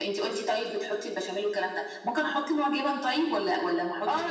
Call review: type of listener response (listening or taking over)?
taking over